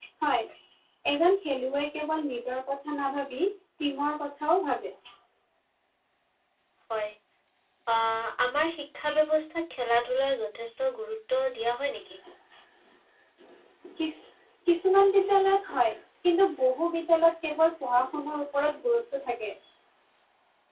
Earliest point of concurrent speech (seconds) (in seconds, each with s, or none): none